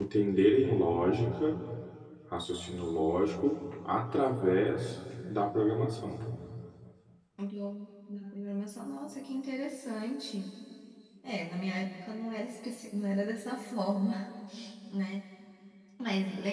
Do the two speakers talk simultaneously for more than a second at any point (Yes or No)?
No